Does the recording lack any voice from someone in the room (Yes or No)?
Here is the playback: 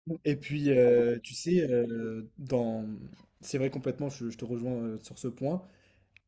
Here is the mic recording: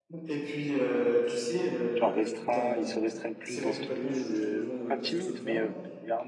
No